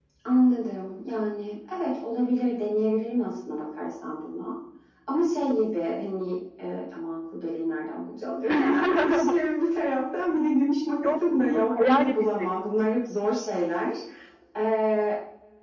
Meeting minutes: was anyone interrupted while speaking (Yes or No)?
Yes